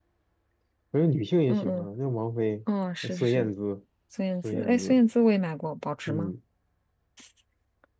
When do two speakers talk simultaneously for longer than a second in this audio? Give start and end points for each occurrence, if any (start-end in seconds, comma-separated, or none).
none